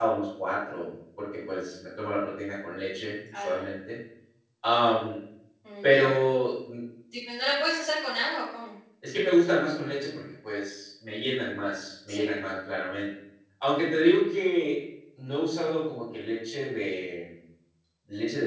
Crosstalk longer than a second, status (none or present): none